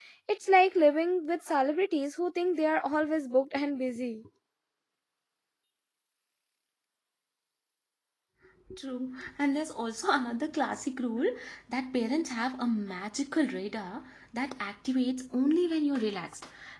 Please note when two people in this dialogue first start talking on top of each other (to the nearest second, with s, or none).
none